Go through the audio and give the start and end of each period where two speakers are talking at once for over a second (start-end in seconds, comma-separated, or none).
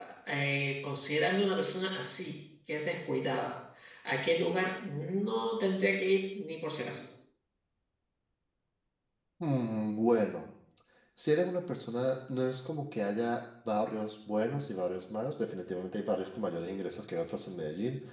none